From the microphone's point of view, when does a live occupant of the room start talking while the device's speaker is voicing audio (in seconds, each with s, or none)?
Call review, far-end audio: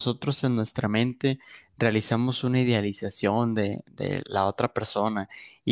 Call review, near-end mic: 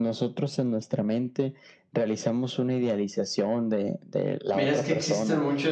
4.5 s